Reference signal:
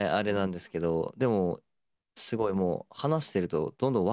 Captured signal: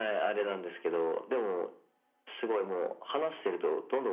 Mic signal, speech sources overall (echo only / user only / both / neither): echo only